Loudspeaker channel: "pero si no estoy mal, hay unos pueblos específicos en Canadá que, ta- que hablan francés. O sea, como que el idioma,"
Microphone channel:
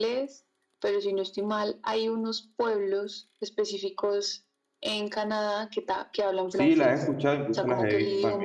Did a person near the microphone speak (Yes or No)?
Yes